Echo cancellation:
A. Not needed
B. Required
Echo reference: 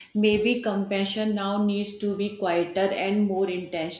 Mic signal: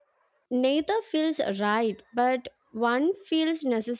A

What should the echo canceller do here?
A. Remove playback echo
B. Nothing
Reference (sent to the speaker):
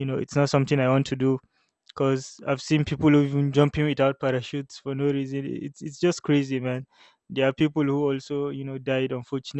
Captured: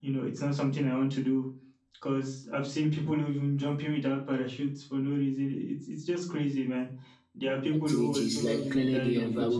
A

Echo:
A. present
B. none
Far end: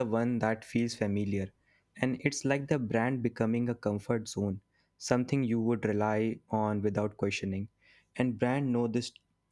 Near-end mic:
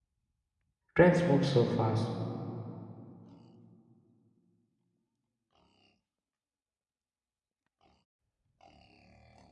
B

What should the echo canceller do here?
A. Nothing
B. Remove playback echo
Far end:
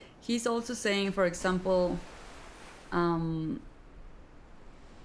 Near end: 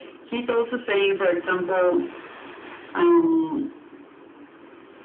B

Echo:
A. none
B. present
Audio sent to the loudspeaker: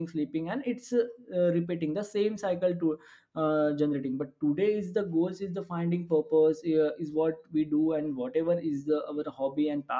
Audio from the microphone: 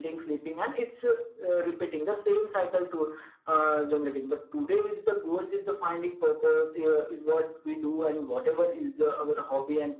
B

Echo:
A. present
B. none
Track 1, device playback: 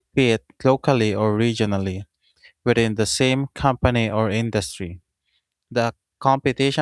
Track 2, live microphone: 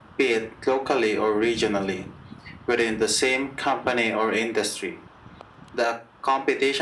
A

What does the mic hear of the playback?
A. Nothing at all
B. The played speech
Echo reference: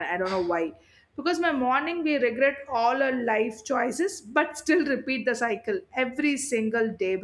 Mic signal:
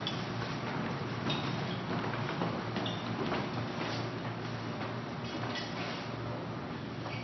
A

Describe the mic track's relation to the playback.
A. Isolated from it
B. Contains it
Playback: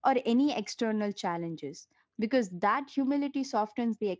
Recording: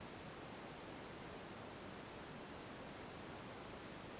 A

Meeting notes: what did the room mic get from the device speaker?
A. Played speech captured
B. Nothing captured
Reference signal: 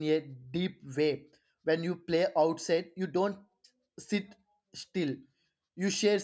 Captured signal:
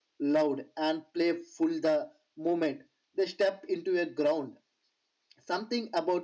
B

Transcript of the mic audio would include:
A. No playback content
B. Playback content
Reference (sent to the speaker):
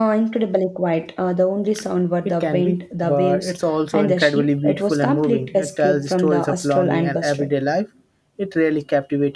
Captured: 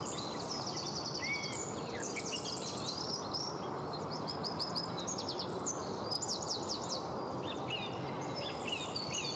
A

